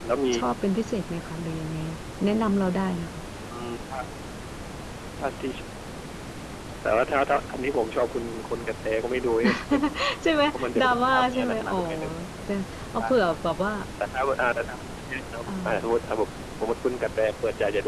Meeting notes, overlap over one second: present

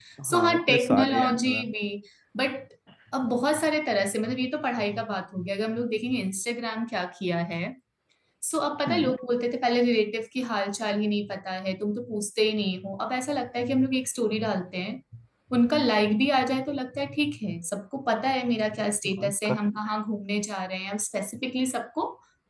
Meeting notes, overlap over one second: present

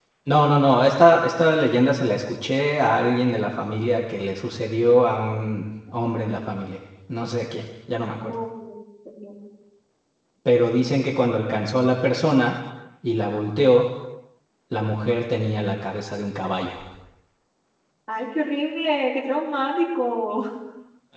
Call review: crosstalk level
none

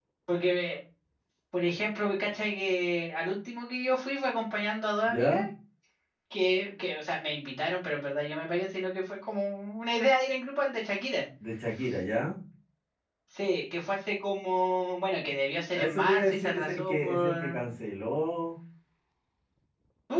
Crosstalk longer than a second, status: present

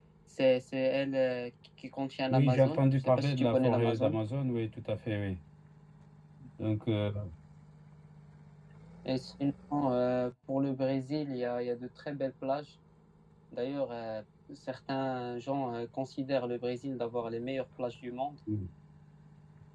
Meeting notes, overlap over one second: present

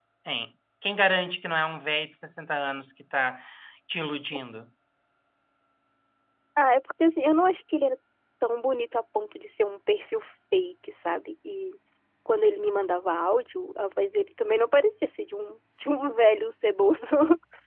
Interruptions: none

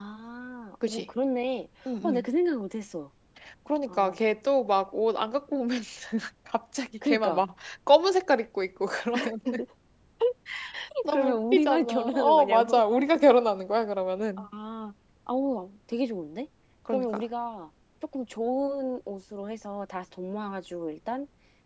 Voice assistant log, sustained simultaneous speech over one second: present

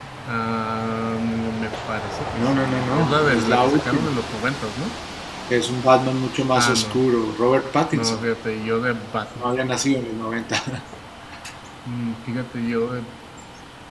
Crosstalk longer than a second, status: present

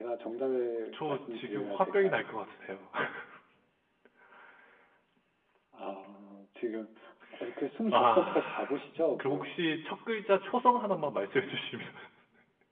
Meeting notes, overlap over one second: present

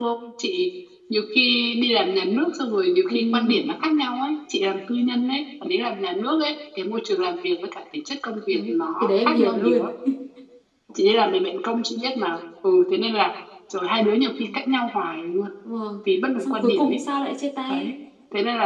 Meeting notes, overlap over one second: present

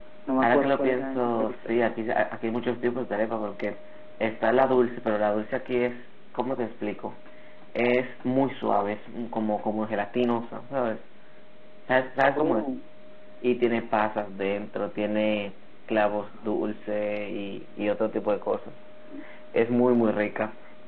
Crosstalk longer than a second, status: present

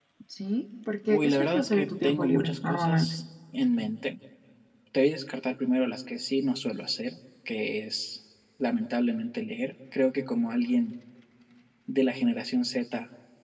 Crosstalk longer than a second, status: present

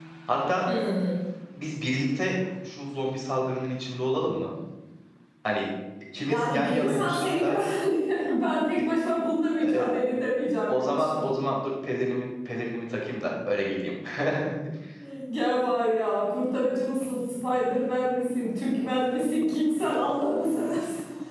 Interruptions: present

